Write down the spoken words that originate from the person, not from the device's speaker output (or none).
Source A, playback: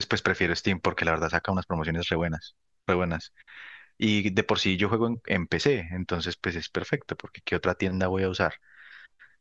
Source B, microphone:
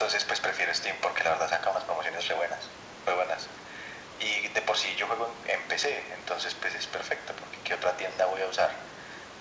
none